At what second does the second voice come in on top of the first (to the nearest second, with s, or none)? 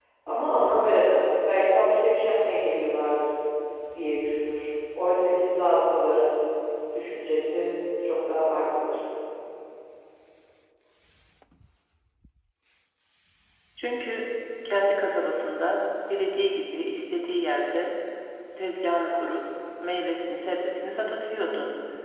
none